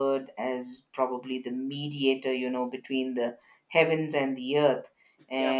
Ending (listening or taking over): listening